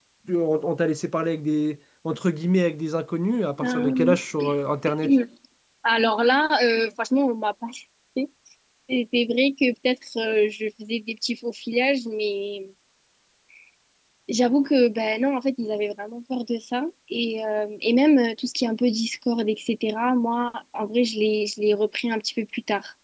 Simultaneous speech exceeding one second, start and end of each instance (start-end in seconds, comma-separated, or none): none